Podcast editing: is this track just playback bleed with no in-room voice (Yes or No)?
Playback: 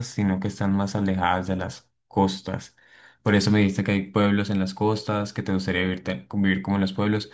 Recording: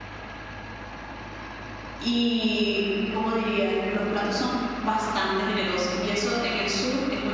No